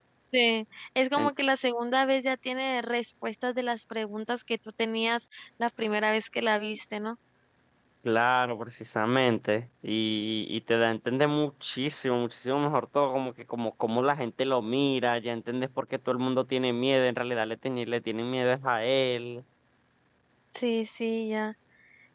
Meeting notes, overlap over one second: none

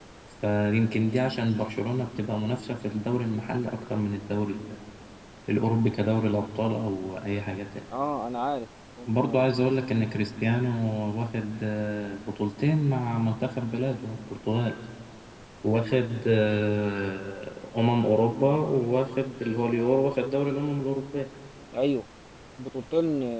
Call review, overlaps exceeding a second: none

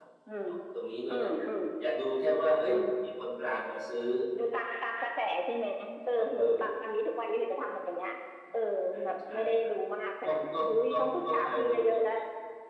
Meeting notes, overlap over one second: present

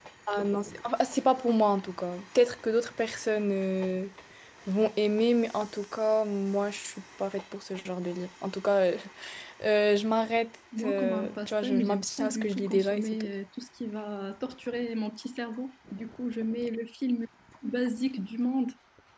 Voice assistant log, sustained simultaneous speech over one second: present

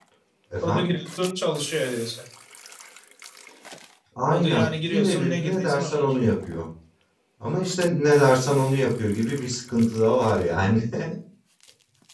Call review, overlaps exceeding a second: present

